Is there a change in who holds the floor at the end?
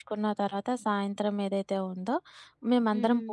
No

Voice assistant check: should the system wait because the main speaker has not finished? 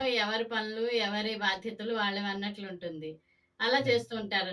Yes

